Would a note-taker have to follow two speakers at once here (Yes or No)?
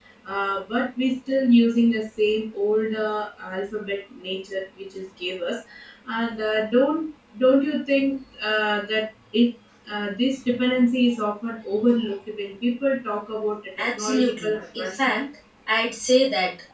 Yes